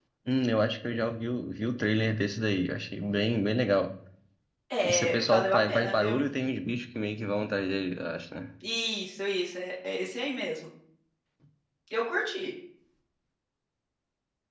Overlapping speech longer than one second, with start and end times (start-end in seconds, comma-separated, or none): 4.8-6.1